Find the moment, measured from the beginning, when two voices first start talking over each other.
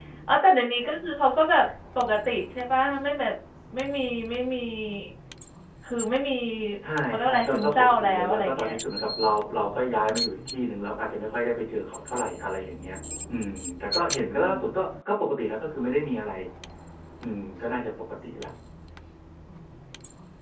7.1 s

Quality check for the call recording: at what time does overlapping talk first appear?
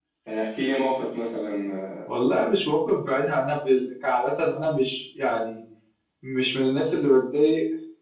none

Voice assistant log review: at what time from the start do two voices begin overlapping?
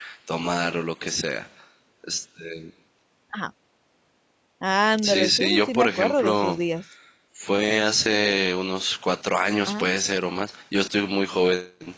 5.0 s

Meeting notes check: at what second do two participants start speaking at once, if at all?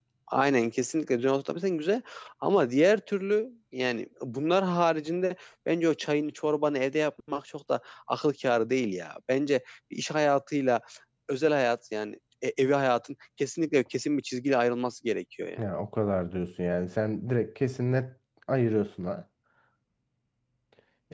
none

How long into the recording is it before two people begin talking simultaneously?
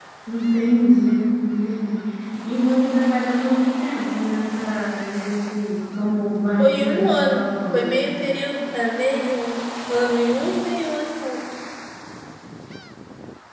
6.6 s

